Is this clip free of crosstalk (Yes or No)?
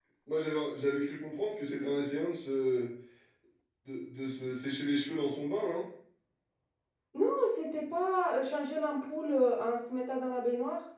Yes